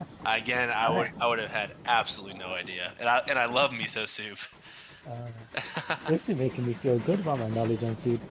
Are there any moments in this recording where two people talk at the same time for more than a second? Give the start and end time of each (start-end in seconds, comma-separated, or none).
none